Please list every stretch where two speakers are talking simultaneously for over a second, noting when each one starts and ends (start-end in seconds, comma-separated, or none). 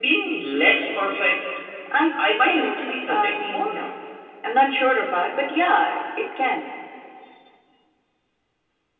2.2-3.7